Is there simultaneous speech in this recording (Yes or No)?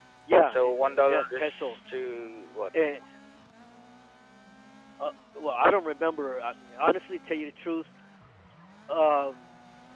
Yes